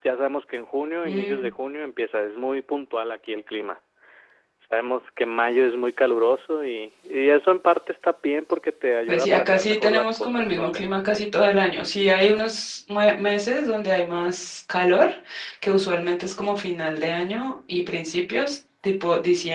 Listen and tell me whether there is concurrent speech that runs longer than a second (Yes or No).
Yes